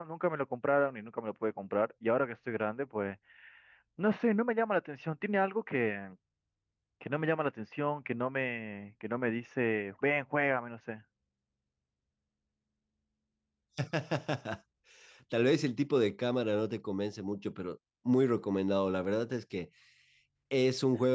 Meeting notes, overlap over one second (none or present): none